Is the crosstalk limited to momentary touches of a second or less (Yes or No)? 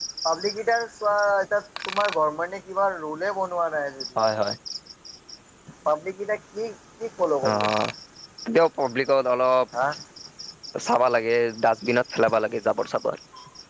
Yes